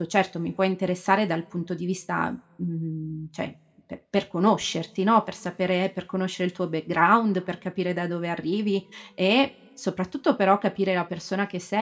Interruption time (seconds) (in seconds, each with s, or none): none